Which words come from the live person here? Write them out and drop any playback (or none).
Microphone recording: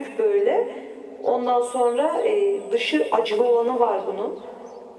none